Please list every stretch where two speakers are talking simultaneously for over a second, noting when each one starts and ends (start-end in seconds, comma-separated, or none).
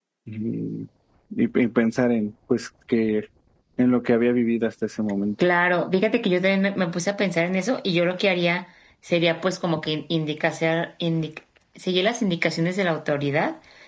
none